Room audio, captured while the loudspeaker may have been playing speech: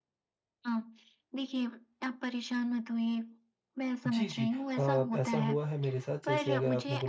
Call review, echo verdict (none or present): present